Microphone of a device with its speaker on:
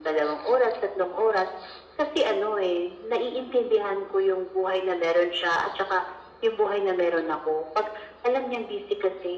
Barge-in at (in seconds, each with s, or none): none